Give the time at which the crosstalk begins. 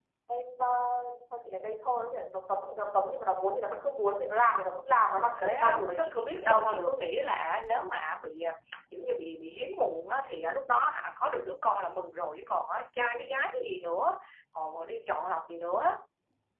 5 s

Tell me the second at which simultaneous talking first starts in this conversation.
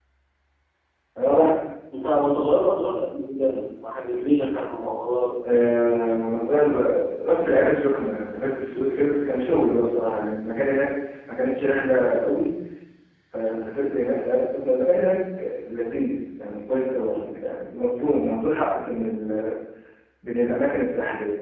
none

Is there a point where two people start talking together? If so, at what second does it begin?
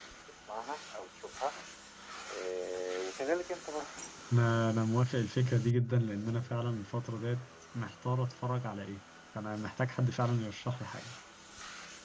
none

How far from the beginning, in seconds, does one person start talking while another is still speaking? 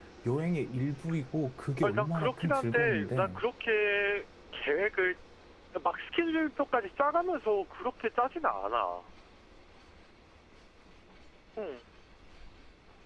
2 s

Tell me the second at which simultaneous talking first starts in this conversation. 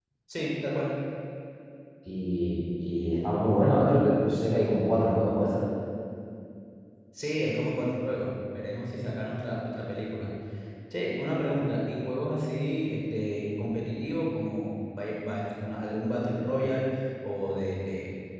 none

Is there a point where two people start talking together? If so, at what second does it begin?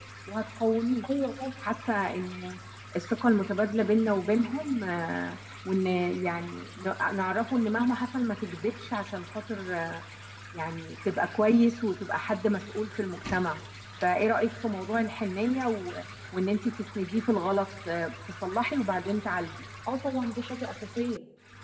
none

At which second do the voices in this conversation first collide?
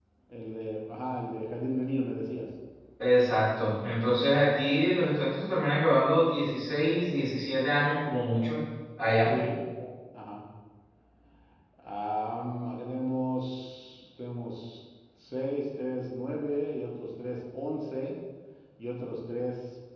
none

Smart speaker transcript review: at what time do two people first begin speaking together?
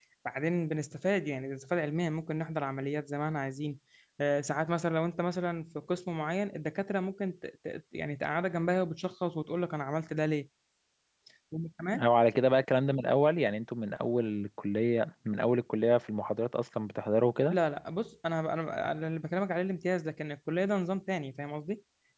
none

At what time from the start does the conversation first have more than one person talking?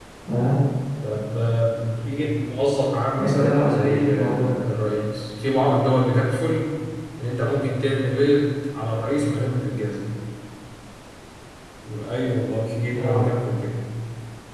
3 s

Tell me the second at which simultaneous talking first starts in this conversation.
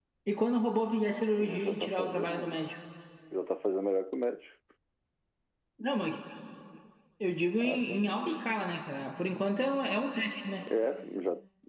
1 s

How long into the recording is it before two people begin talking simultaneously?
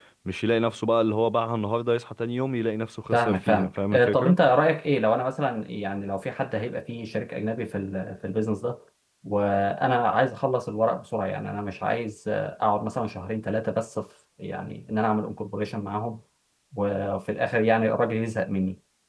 3 s

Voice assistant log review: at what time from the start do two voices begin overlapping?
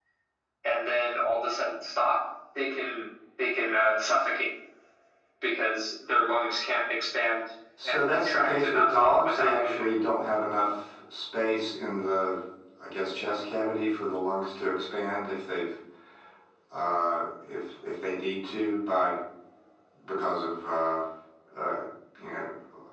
8 s

